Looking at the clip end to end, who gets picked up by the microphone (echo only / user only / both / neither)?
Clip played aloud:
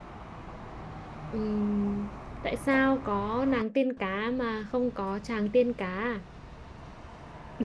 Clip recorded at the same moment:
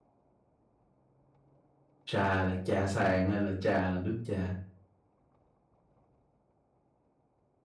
user only